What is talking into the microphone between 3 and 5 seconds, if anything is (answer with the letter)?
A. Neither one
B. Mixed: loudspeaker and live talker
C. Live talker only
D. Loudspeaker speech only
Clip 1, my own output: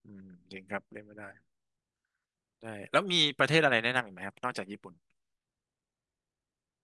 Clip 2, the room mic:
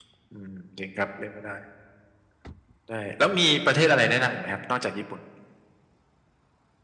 D